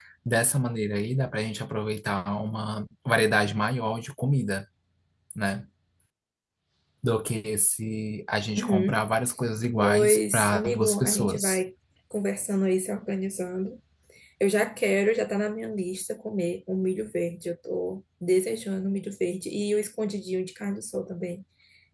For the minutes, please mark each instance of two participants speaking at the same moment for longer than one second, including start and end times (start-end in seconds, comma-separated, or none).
9.8-11.6